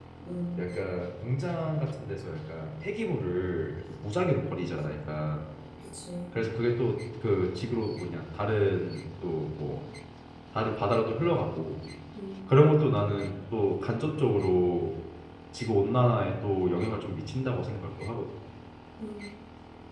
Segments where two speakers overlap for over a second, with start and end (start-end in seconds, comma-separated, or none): none